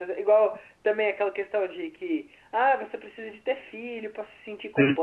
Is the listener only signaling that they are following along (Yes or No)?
No